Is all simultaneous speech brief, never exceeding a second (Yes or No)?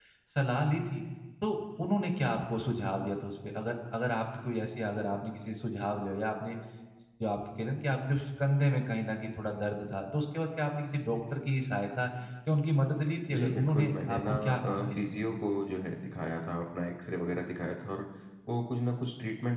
No